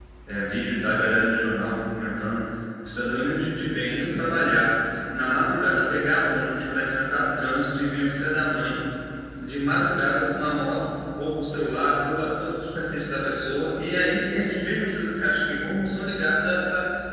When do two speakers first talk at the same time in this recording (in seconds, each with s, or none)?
none